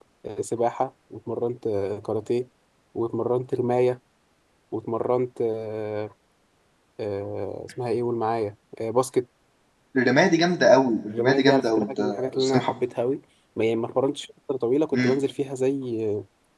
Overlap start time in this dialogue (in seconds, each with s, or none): 11.1 s